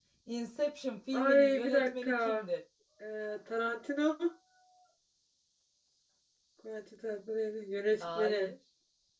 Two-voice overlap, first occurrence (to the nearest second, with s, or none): 1 s